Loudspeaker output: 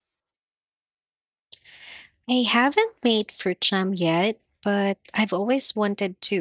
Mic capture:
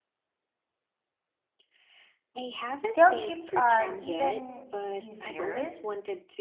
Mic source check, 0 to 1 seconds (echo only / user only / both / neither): neither